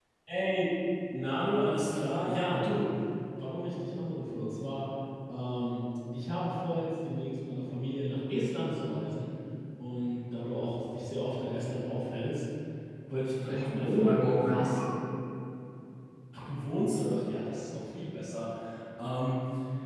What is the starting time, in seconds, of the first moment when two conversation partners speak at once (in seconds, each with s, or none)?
13.5 s